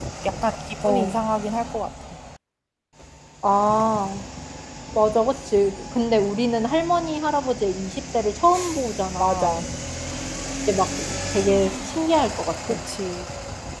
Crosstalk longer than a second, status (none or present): none